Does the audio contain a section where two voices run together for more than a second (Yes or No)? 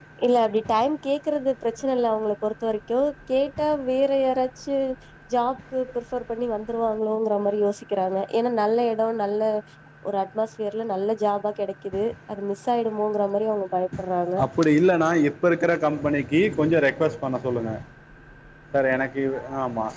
No